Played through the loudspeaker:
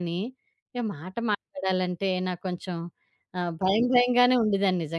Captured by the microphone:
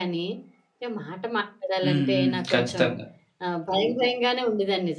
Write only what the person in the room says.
హ్మ్. హ్మ్. ఖచ్చితంగా.

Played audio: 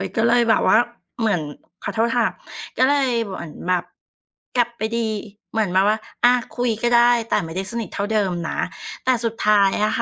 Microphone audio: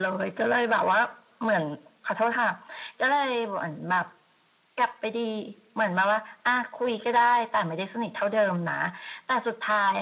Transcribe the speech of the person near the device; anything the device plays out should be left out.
none

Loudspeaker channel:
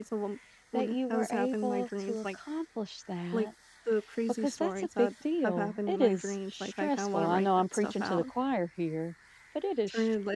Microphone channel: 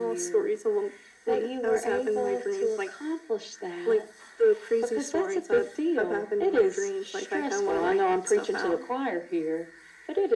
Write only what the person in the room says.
none

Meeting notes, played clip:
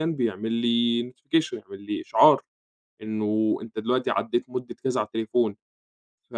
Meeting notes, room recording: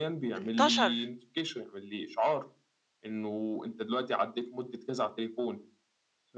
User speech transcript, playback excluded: انتشر

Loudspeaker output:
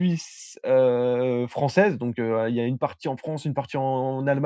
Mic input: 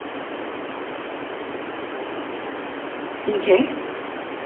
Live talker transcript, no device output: OK.

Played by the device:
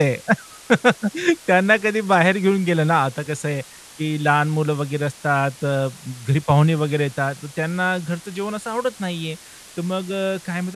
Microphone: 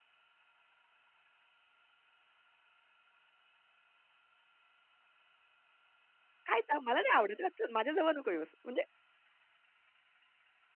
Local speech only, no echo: काय ता मला नाही आवडत हां, चल माझ्याजवळ नको येऊस." म्हणजे

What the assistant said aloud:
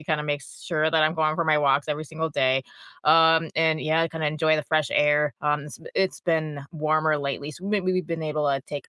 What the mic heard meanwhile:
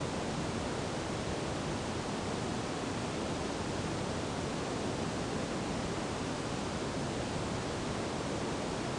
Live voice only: none

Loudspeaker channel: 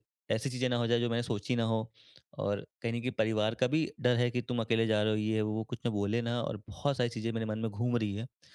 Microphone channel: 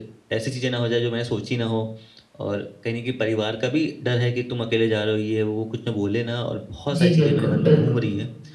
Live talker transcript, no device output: जी, बिल्कुल, बिल्कुल।

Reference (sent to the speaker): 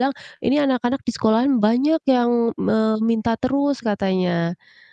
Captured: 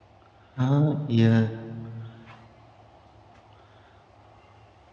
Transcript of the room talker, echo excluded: Oh, iya.

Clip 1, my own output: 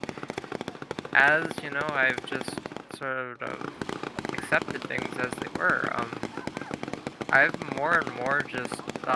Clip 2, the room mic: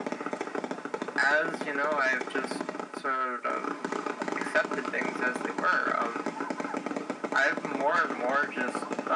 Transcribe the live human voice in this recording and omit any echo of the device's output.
none

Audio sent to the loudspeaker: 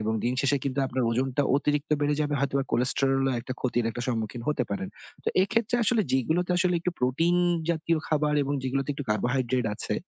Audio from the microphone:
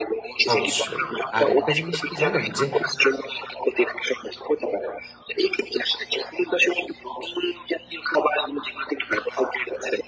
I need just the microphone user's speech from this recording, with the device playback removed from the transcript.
অবশ্যই। আরেকটা জিনিস কি জানেন? যে

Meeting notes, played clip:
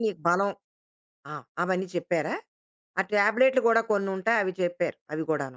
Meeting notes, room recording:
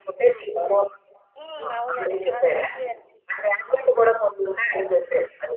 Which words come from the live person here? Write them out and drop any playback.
హ్మ్. అవునండి. చాలా మంచిగా జరిగింది.

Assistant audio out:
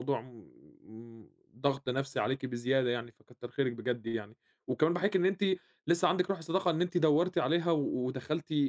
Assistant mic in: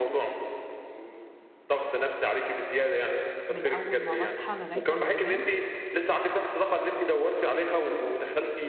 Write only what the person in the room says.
من أول ما باصحى لغاية أمّا بانام.

